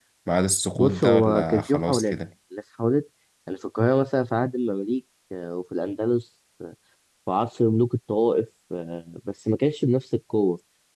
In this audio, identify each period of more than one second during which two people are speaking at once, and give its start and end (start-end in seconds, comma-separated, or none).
0.8-2.1